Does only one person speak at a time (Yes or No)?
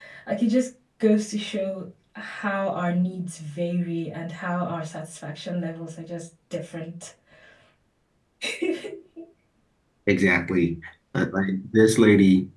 Yes